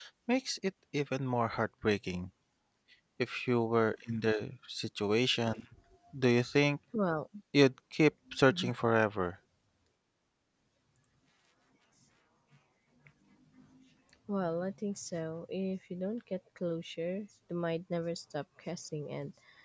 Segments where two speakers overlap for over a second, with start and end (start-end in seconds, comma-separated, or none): none